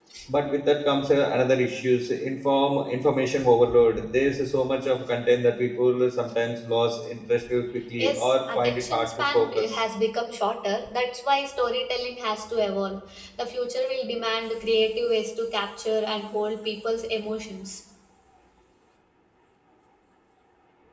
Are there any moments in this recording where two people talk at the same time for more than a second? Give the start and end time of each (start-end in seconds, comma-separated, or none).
8.0-9.8